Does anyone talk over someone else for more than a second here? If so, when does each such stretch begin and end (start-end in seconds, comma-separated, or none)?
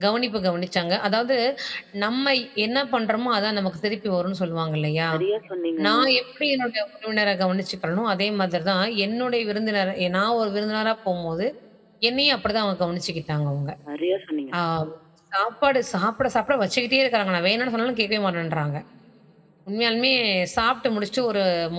none